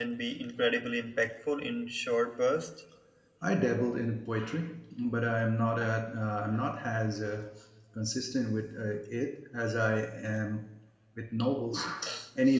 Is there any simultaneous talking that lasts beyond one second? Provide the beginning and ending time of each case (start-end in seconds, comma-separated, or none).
none